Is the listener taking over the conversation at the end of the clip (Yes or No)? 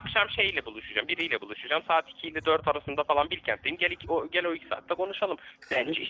Yes